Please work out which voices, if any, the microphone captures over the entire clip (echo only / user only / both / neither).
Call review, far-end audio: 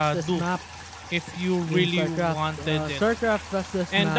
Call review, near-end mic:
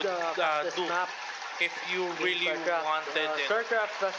echo only